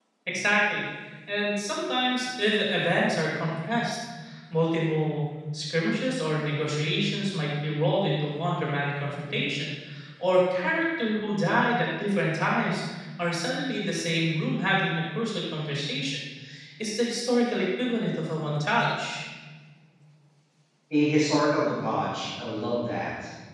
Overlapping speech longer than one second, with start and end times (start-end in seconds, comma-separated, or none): none